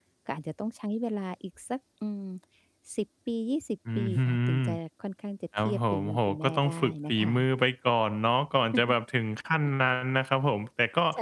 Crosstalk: present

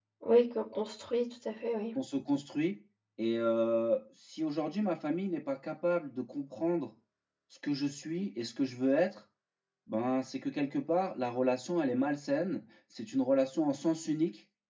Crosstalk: none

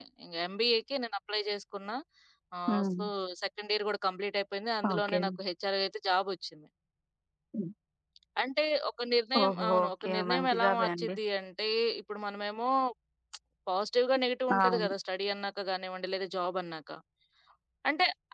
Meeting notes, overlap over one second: present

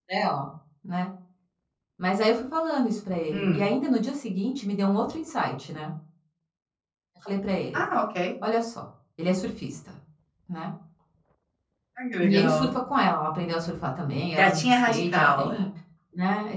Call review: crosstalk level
present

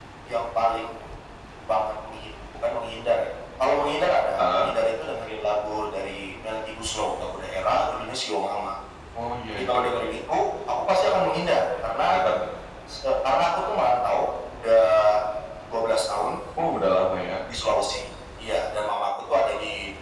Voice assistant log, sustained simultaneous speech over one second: none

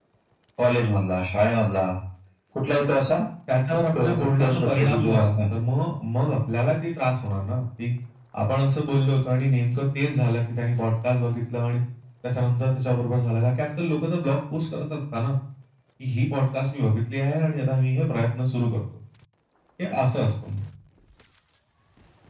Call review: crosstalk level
present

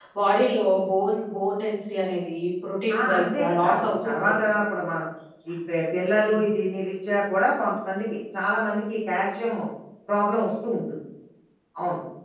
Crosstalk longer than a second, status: present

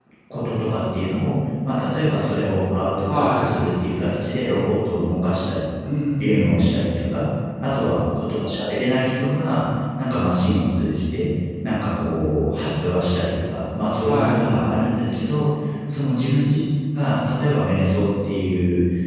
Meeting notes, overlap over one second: none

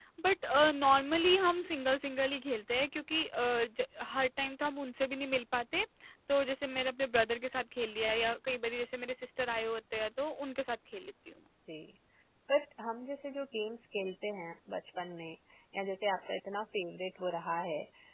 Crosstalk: none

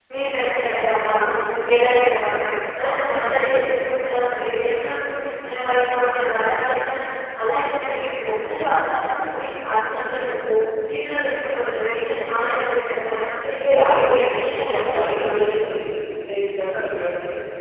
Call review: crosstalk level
present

